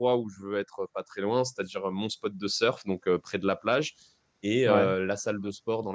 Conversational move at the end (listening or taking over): listening